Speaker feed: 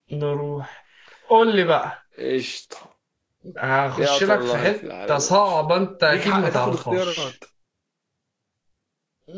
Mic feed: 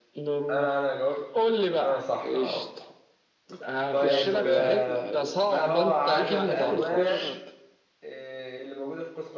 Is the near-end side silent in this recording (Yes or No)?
No